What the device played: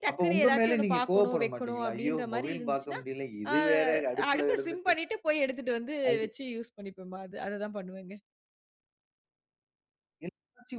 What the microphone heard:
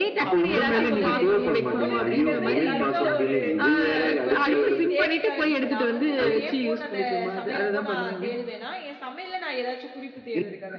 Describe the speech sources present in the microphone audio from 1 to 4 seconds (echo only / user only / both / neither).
both